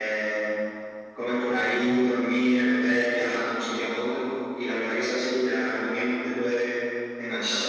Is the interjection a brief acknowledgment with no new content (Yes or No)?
No